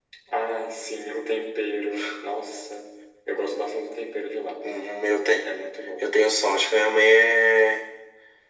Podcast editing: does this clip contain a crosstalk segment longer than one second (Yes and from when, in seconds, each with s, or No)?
No